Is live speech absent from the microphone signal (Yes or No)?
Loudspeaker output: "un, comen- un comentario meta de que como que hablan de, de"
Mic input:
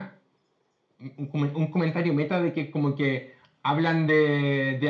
Yes